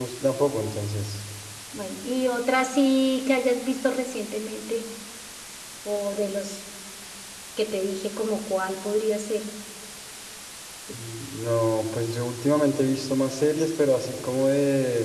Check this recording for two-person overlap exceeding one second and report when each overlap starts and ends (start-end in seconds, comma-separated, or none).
none